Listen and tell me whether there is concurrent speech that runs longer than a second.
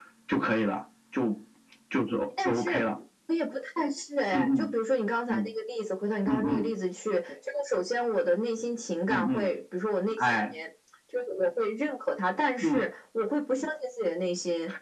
No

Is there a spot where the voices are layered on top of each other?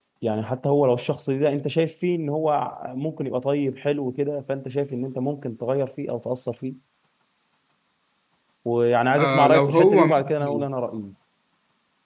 Yes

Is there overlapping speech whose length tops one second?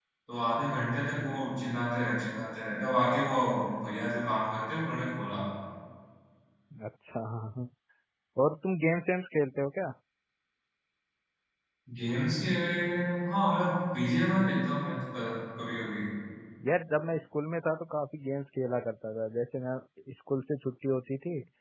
No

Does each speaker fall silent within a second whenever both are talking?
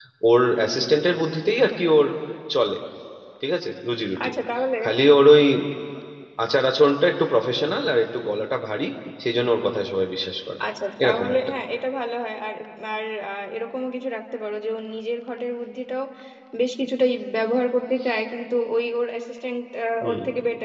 Yes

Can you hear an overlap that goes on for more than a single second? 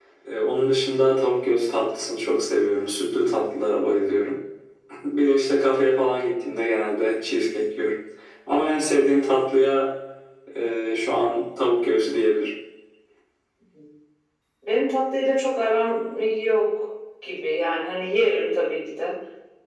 No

